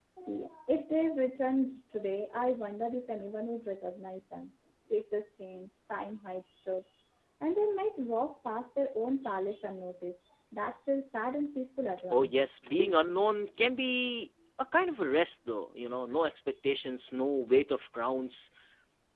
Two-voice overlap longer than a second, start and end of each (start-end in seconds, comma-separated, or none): none